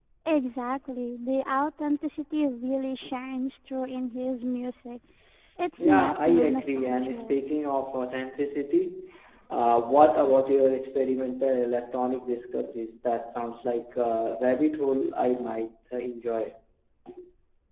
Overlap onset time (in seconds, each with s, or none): 5.8 s